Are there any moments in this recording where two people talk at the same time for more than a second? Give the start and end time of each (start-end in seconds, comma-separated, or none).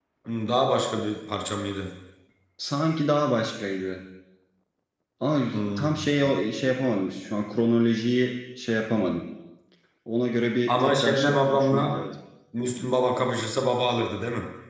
10.7-12.0